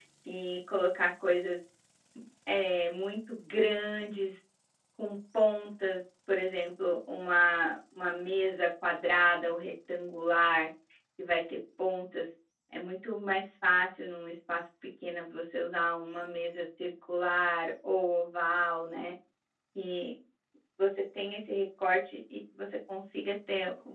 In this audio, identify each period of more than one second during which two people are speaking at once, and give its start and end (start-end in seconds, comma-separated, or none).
none